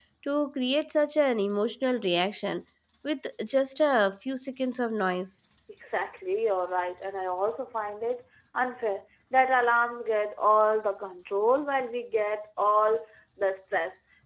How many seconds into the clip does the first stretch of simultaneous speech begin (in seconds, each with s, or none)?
none